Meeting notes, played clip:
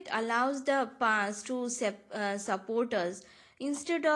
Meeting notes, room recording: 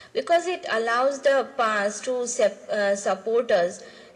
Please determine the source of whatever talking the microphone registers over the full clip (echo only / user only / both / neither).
echo only